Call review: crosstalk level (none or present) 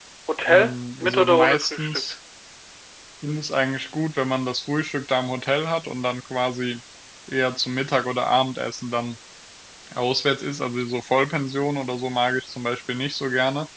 present